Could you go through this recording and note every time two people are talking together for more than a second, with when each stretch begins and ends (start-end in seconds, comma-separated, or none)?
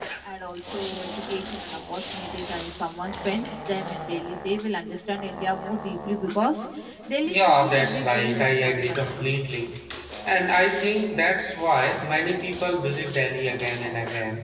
7.2-9.3